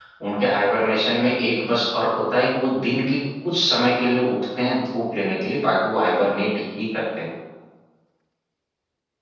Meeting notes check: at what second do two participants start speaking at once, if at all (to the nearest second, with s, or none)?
none